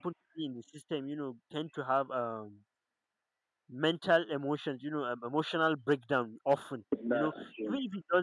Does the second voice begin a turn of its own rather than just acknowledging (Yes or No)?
No